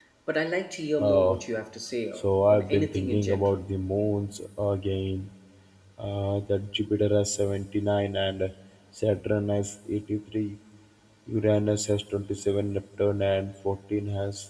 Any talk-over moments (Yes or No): Yes